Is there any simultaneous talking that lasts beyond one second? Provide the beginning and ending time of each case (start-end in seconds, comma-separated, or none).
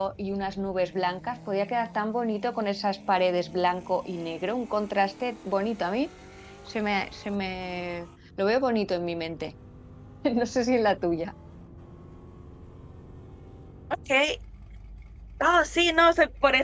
none